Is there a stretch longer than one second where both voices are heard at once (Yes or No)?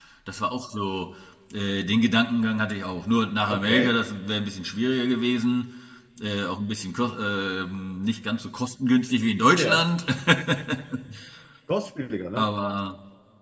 No